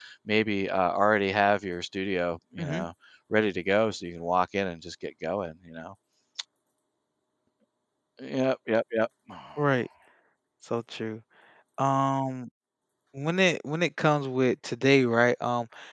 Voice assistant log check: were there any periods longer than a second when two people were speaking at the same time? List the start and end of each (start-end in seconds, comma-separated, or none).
none